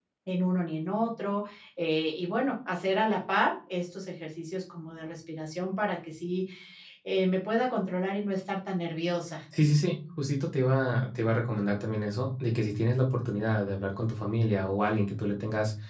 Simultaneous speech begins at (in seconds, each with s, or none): none